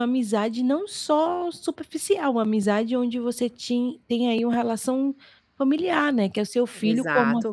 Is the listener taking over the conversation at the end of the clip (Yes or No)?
Yes